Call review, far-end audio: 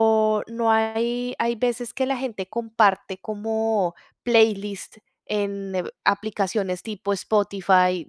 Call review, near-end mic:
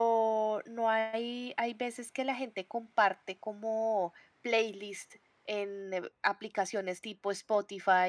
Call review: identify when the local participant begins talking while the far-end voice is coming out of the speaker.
none

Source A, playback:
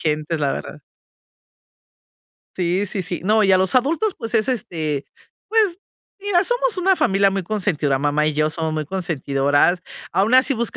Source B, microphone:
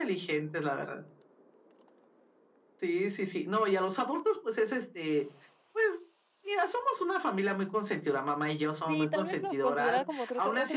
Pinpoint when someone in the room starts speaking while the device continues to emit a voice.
8.9 s

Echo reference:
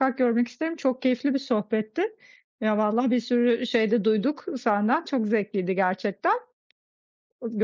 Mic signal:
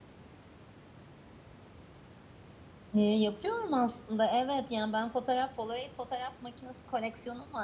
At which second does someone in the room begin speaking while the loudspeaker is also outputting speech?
2.9 s

